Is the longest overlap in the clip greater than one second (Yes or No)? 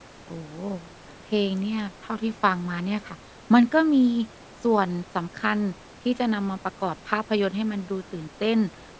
No